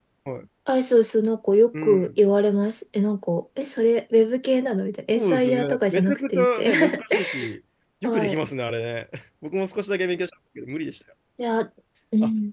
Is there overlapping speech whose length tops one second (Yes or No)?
Yes